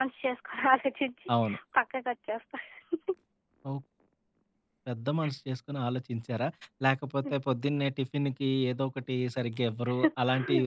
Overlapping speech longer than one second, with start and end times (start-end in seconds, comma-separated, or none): none